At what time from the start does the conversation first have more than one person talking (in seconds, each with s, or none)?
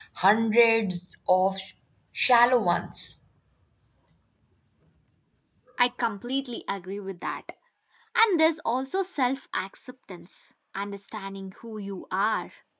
none